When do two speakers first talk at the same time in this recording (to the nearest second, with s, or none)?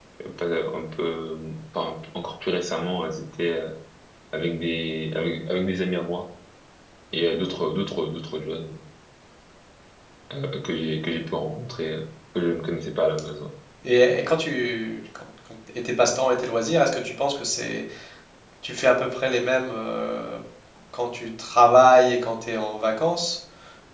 none